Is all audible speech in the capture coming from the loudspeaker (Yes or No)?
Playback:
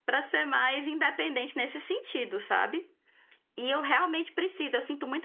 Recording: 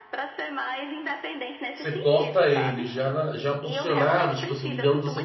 No